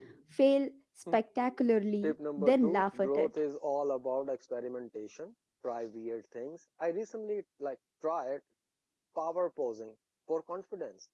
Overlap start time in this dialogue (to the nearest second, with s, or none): 2 s